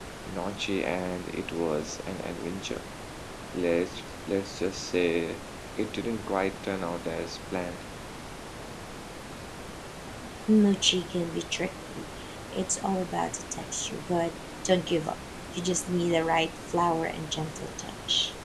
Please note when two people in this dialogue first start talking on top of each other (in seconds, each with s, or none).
none